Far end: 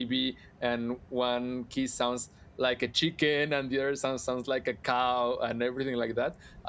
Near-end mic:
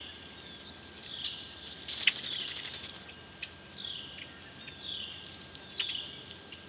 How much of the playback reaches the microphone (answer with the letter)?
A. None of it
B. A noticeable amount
A